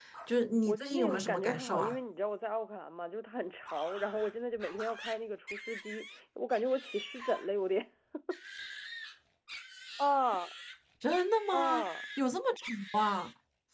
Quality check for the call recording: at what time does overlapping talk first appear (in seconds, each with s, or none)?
0.7 s